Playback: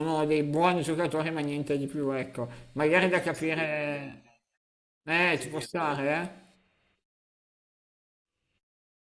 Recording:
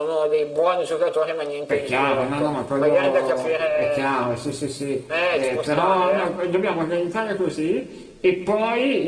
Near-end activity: present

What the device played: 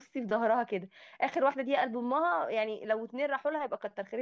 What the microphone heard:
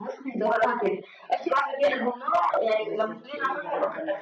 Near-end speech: present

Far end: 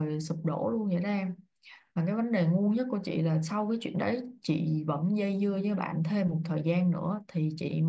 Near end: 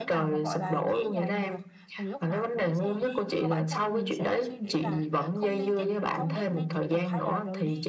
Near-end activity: present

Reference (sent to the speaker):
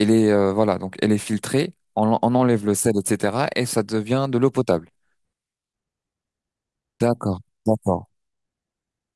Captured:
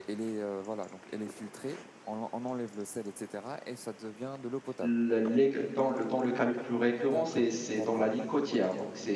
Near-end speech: present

